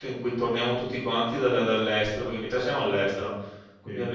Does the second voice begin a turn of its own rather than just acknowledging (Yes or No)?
No